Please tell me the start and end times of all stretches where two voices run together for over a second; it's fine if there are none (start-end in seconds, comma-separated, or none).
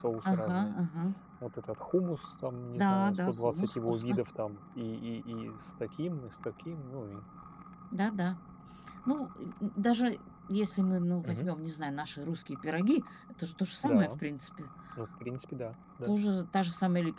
2.8-4.2